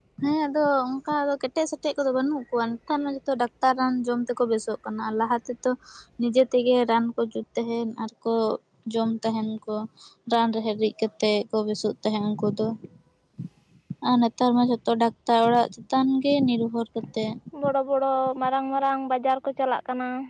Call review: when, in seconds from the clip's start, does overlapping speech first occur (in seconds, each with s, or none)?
none